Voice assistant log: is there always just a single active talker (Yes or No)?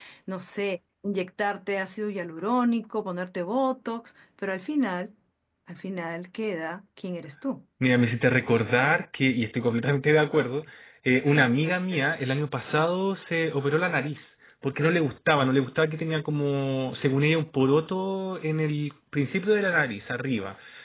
Yes